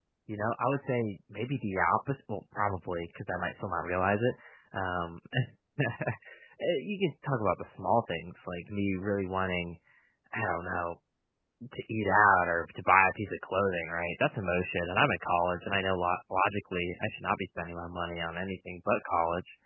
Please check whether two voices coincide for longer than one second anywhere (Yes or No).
No